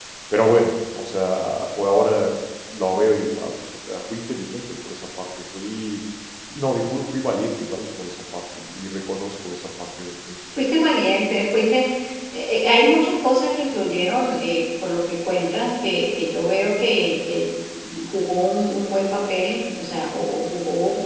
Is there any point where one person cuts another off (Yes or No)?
No